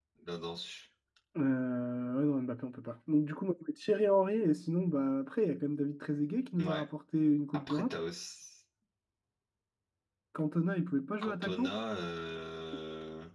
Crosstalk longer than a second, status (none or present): none